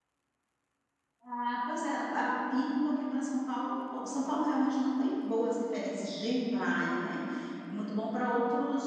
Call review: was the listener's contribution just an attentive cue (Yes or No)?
Yes